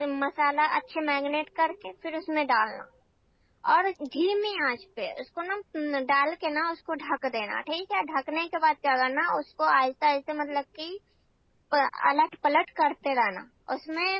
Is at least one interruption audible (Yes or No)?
No